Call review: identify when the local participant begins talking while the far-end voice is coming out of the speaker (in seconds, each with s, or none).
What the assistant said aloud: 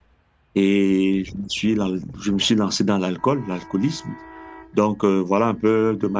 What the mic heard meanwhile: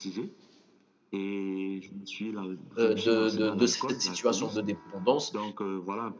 2.8 s